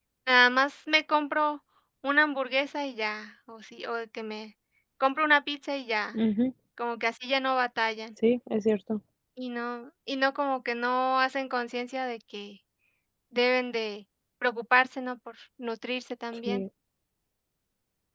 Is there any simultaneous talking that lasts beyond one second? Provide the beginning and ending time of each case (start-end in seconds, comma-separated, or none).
none